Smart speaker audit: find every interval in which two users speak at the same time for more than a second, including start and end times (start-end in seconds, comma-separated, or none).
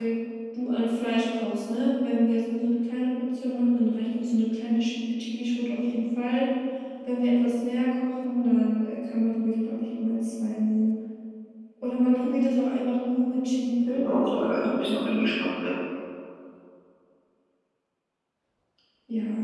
13.9-15.3